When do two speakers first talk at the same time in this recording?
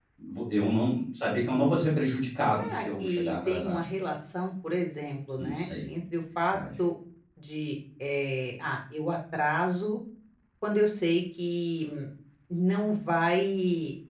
2 s

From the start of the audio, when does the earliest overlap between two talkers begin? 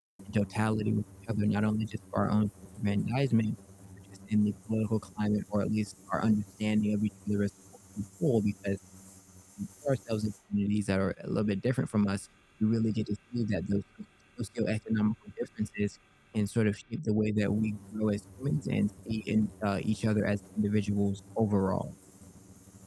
none

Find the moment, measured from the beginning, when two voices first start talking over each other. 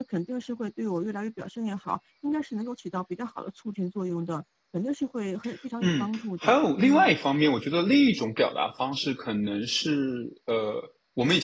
6 s

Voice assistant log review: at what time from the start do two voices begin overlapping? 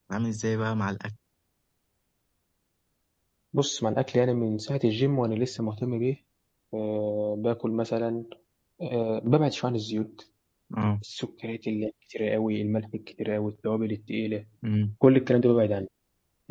none

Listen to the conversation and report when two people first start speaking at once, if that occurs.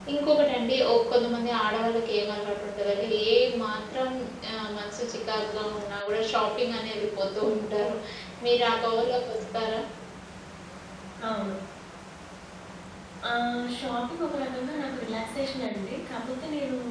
none

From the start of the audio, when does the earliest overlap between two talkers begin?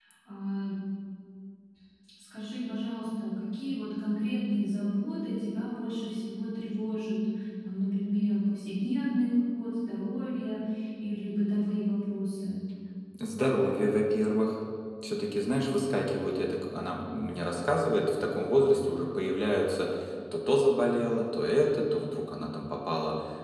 none

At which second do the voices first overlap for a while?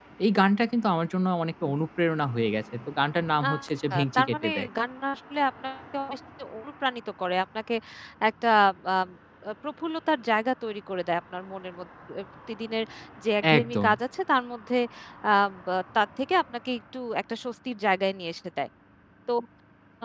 3 s

